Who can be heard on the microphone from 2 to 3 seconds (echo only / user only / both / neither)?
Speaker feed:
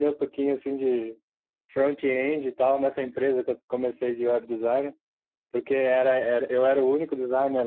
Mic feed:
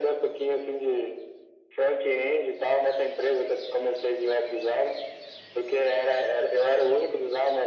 echo only